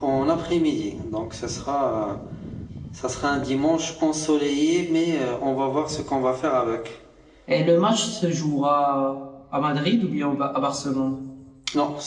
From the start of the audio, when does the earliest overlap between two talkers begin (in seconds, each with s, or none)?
none